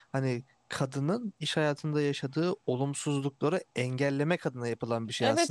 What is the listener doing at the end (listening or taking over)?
taking over